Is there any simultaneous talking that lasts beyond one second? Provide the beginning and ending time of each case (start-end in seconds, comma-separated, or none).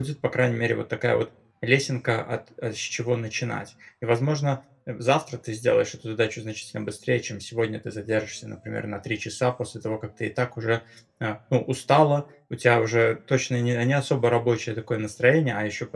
none